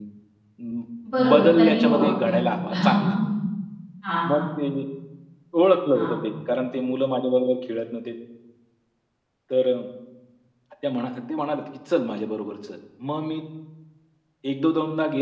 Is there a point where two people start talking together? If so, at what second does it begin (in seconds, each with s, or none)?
1.3 s